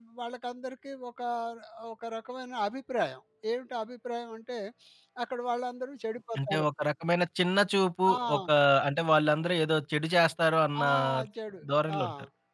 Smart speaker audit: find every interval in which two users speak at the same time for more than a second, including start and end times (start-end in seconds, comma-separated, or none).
none